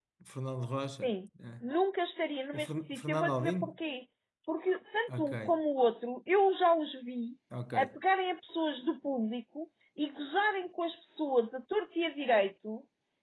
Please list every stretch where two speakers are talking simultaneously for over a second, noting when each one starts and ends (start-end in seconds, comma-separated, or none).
2.5-3.8